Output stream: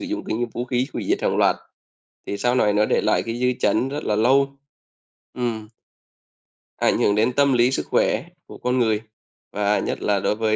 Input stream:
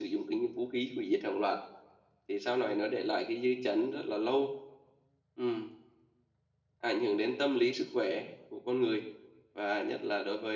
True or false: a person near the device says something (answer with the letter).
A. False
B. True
A